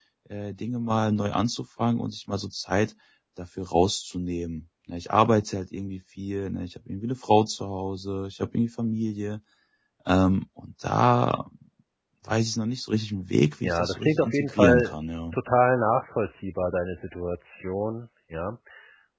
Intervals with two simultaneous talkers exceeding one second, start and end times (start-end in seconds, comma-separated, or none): 13.6-14.9